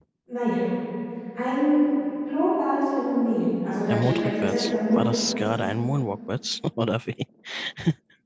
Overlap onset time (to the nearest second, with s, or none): 4 s